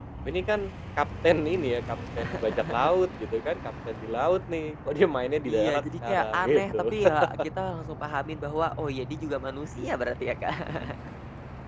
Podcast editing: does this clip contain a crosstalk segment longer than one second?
Yes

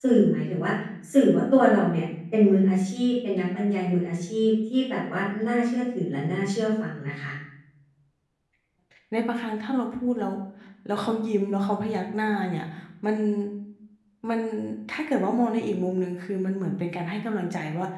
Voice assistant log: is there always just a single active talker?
Yes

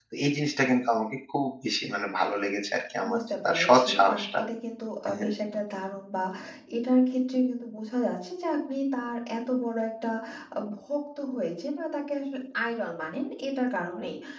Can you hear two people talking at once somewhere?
Yes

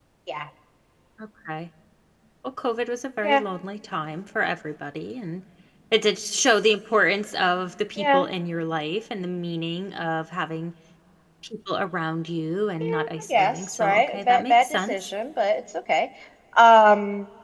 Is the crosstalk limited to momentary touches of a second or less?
No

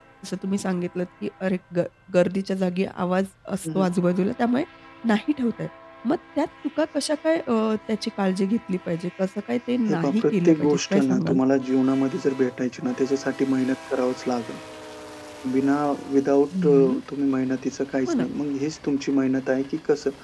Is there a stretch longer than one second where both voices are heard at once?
Yes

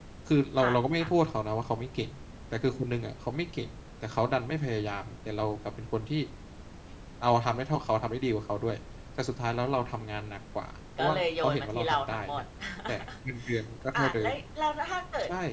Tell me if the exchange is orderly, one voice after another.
No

